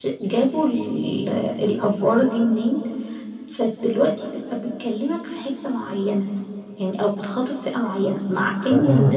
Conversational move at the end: listening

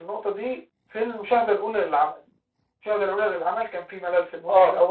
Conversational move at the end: listening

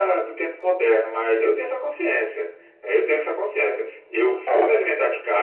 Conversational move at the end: listening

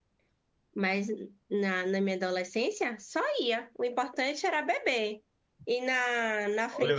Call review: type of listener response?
taking over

